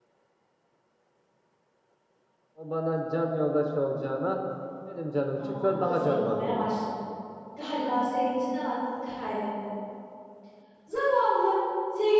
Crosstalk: present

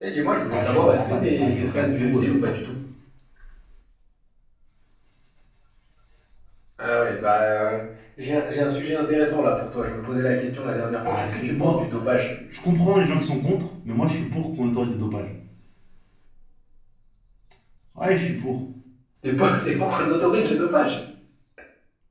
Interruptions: present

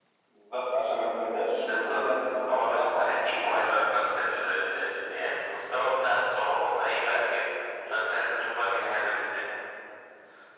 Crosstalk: present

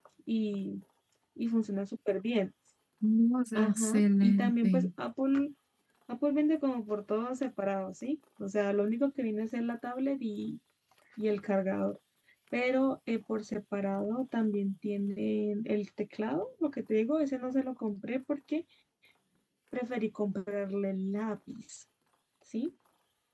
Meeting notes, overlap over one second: present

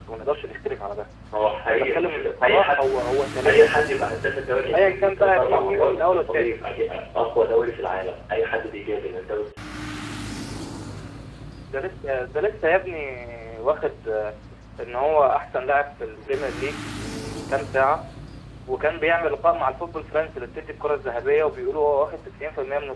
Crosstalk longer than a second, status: present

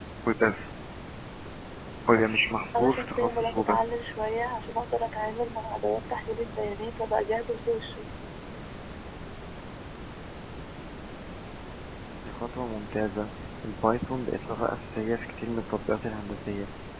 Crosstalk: present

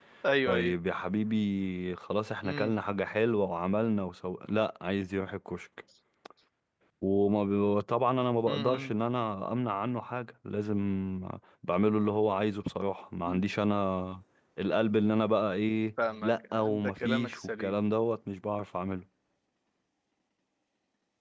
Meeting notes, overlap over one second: present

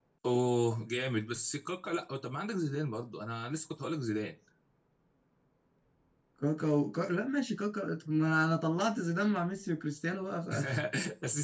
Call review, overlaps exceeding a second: none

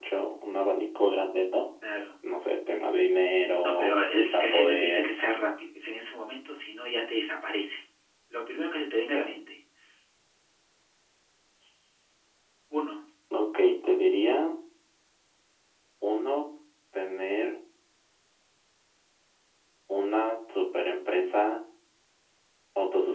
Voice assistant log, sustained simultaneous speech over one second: present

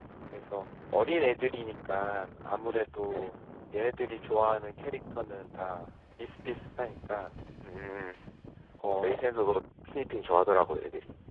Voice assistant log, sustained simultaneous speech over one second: none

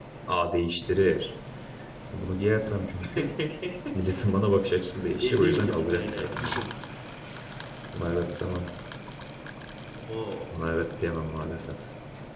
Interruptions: present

